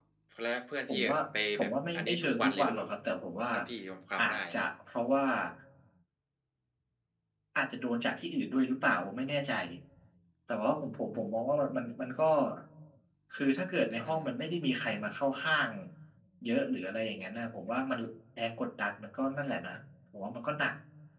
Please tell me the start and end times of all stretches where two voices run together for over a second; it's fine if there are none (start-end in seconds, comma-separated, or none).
1.5-2.9